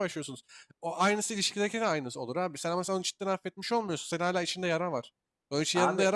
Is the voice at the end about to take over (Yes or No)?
No